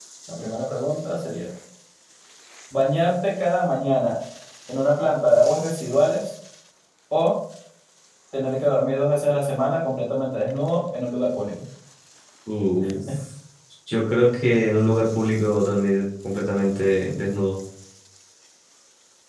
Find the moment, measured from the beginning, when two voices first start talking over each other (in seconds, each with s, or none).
none